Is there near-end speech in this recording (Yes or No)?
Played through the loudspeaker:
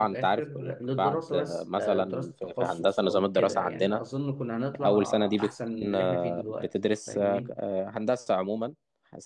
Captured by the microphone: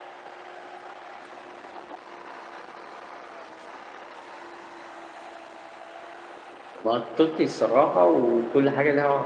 Yes